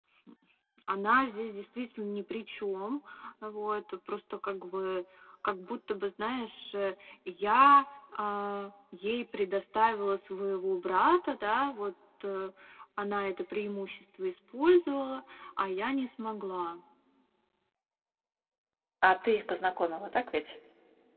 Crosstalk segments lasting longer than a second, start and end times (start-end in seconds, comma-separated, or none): none